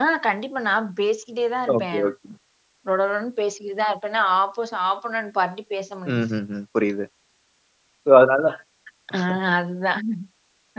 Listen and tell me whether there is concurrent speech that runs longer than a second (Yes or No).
No